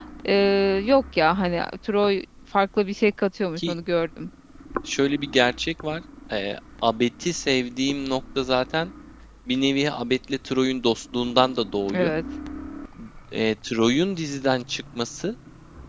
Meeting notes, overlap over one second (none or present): none